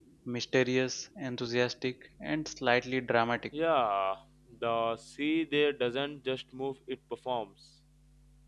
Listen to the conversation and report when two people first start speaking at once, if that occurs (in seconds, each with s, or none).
none